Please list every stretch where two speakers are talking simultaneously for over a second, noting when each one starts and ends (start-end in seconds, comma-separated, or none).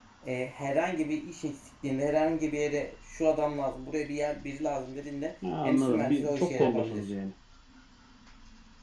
5.6-7.1